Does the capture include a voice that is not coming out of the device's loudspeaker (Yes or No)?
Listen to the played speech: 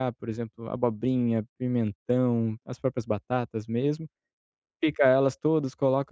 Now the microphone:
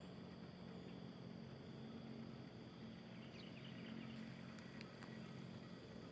No